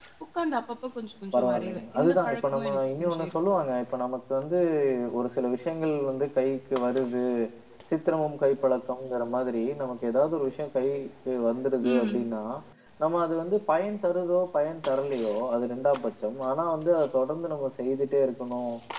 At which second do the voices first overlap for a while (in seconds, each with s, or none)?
1.4 s